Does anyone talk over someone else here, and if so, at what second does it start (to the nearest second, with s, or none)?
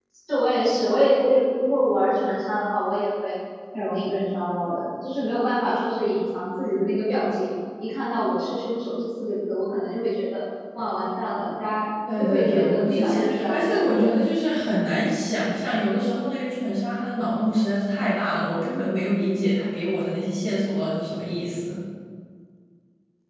12 s